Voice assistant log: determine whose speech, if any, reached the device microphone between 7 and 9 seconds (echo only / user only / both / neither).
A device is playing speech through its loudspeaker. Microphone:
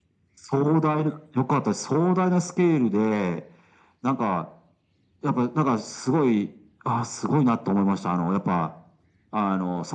echo only